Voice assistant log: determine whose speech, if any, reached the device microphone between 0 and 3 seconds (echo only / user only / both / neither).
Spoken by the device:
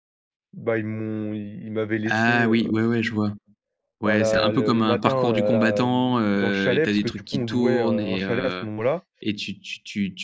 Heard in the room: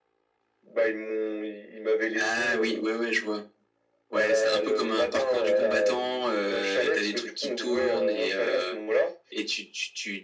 echo only